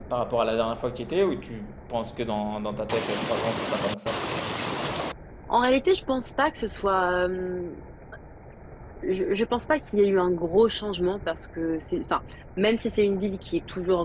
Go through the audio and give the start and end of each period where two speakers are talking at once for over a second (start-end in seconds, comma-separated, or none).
none